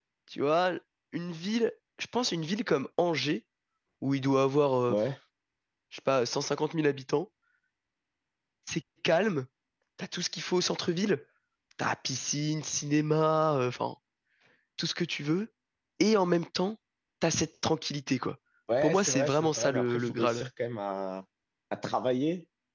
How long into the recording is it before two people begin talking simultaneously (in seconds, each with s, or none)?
18.8 s